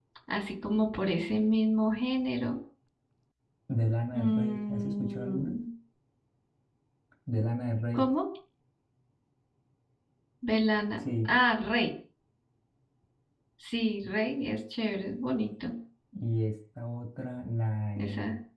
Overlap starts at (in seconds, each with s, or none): 4.1 s